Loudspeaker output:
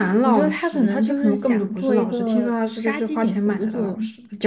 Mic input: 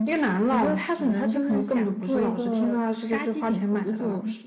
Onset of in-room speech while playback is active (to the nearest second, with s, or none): none